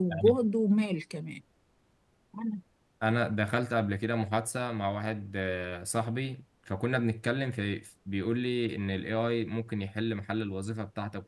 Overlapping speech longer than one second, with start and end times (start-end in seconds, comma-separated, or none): none